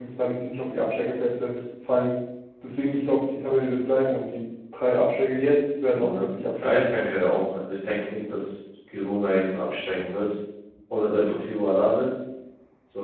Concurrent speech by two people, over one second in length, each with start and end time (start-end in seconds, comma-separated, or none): none